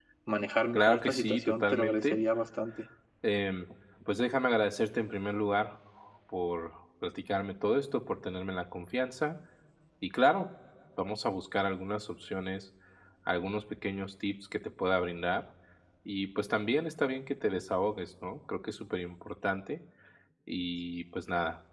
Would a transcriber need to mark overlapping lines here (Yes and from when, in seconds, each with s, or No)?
Yes, from 0.7 s